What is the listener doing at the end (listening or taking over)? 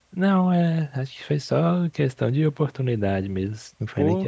taking over